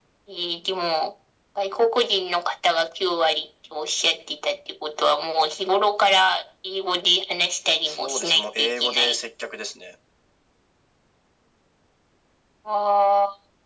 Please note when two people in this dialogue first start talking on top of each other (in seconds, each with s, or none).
7.8 s